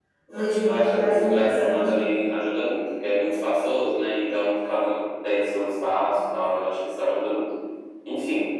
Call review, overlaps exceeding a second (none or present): present